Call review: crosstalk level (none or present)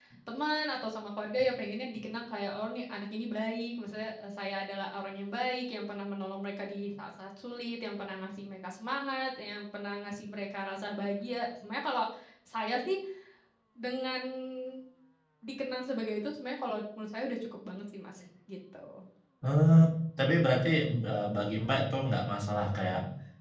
none